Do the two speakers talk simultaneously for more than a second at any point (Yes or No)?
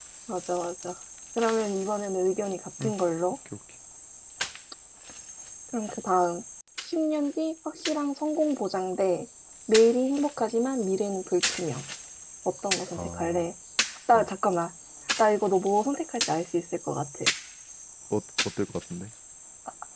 No